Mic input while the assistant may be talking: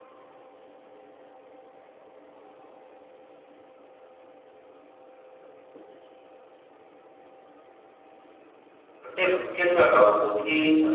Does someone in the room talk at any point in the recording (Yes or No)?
Yes